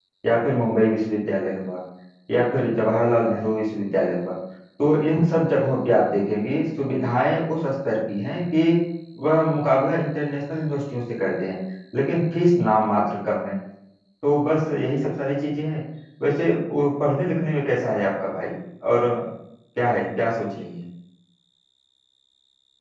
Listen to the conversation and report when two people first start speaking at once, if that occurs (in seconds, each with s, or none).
none